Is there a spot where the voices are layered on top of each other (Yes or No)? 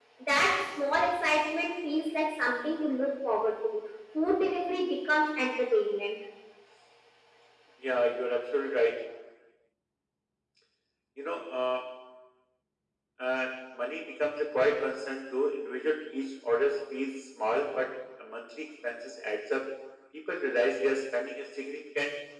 No